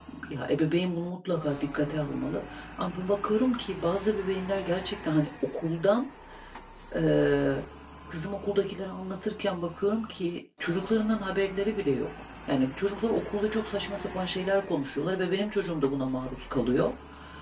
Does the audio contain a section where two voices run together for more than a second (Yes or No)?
No